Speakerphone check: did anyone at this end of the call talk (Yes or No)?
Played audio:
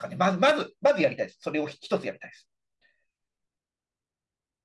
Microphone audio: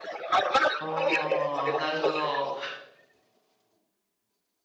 Yes